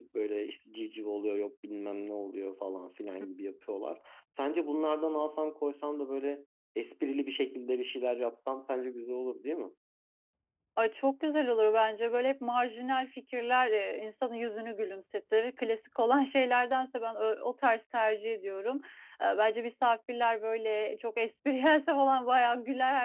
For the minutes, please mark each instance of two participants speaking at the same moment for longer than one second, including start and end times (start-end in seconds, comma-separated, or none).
none